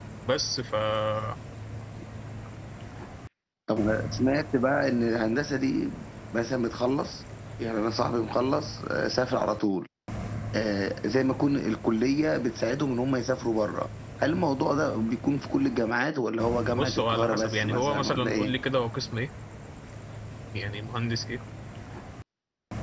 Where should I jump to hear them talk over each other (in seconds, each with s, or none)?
16.8 s